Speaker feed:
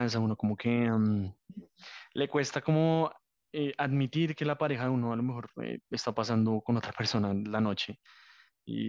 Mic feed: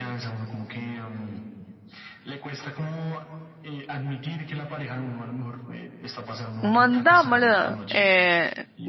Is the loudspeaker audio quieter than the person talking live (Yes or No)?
Yes